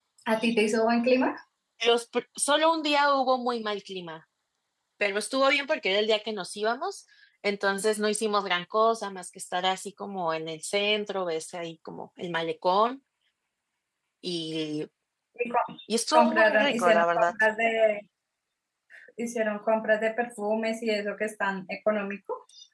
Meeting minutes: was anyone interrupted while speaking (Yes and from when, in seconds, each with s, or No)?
Yes, from 16.1 s